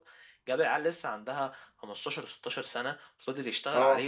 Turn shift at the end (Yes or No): No